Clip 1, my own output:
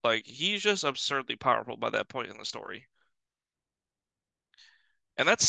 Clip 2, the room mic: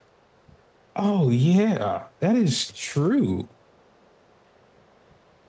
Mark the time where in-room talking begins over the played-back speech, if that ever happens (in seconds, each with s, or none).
1.0 s